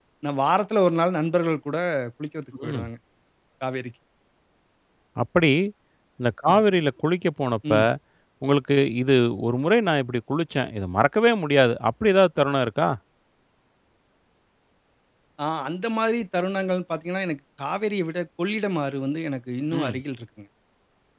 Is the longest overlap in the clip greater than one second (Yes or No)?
No